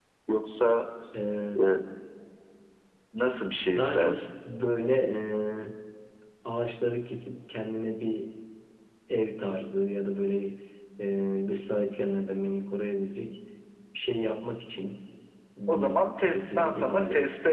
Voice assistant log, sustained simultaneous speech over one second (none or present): present